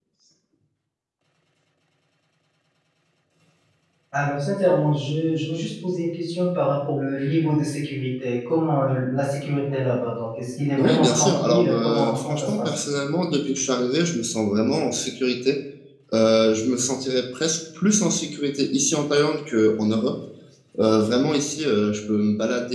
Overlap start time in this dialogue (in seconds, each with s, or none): 10.8 s